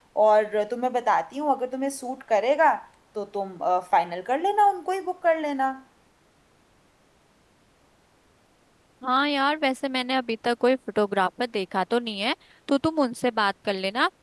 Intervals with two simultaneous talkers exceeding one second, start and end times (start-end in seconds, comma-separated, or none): none